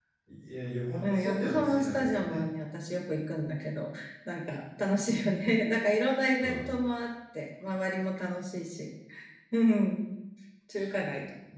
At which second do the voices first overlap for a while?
1.0 s

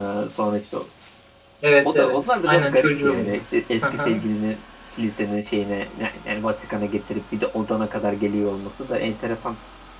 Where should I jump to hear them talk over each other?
1.8 s

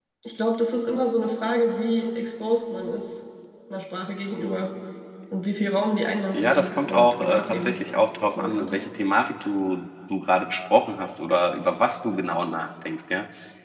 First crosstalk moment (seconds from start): 6.3 s

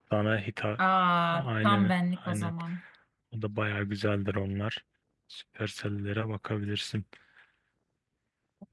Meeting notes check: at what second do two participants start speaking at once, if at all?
1.3 s

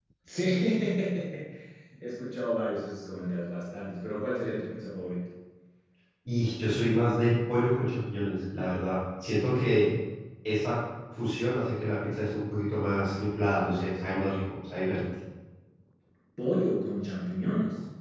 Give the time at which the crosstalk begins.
none

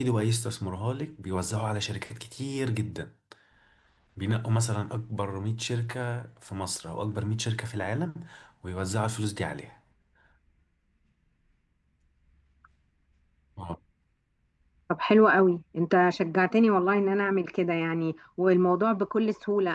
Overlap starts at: none

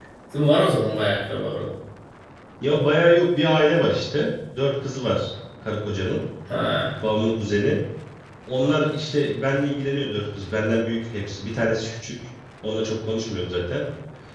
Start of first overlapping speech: none

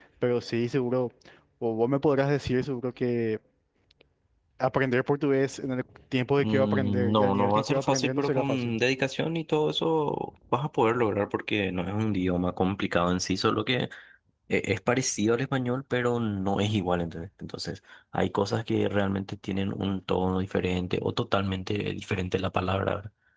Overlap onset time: 6.4 s

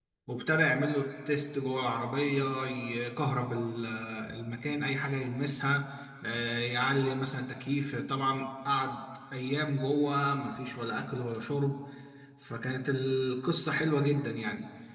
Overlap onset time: none

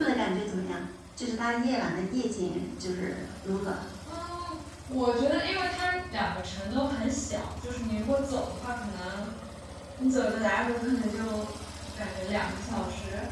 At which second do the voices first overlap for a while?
none

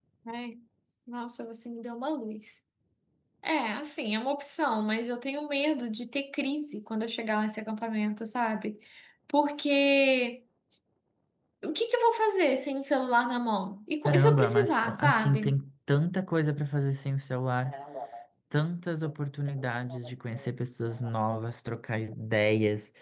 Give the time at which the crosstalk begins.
14.1 s

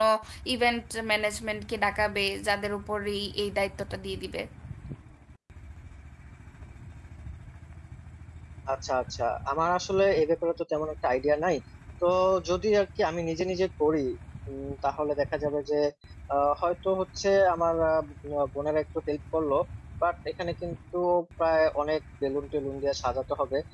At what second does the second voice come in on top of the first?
none

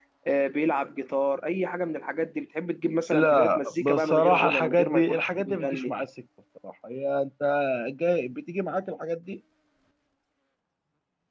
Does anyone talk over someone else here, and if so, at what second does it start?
3.1 s

